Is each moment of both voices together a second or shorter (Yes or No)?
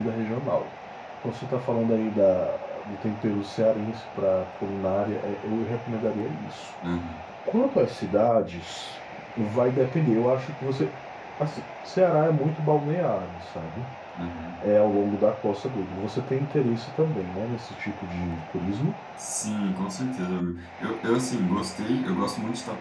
Yes